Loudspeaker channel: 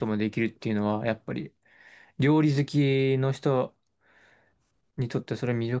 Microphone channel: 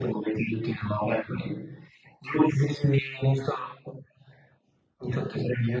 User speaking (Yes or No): No